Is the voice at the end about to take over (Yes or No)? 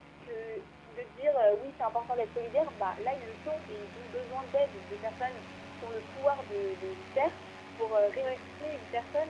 No